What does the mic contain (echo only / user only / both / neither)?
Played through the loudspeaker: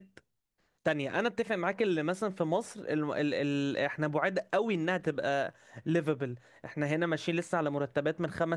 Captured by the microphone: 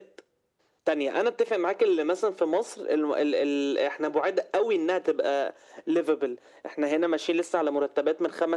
echo only